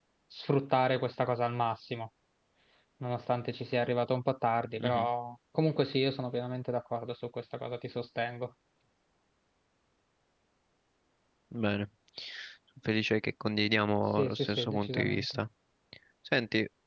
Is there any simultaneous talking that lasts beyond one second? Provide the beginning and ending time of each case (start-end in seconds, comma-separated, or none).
14.2-15.4